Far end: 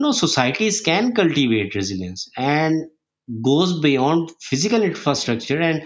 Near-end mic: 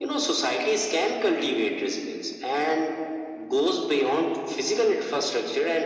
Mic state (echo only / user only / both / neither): echo only